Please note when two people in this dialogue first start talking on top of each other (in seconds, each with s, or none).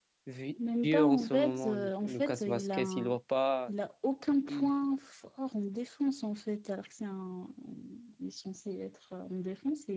0.6 s